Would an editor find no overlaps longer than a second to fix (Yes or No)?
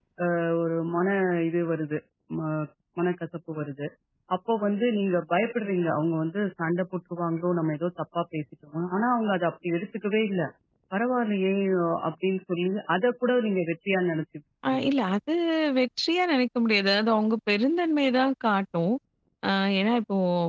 Yes